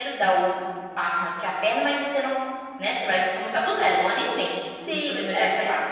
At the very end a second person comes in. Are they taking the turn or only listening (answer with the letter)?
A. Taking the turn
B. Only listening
A